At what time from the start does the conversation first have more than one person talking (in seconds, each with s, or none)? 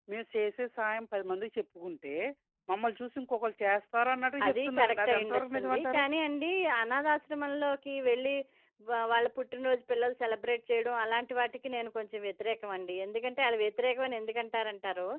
4.4 s